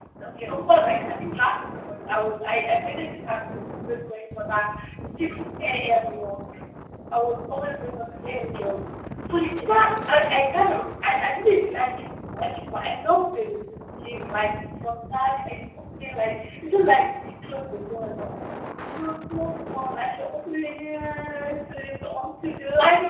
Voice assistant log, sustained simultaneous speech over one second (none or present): none